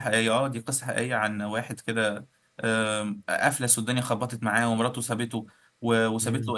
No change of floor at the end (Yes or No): Yes